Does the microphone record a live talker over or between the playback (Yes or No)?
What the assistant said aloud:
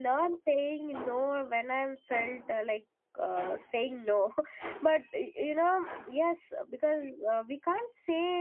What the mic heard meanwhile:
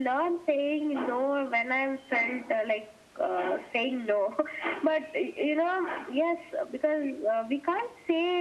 No